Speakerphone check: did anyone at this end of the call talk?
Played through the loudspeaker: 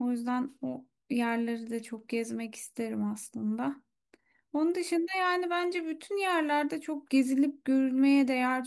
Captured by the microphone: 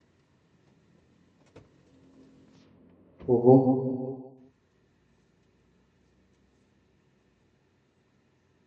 Yes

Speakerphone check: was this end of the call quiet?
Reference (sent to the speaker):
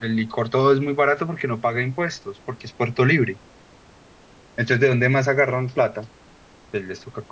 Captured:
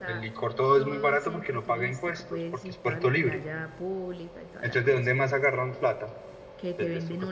No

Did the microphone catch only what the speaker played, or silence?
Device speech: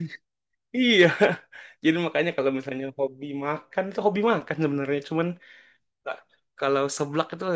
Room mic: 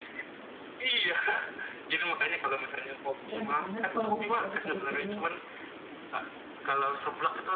No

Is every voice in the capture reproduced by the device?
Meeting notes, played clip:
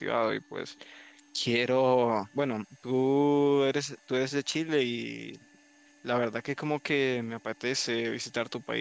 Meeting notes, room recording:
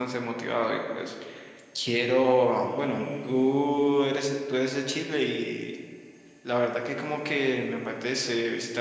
No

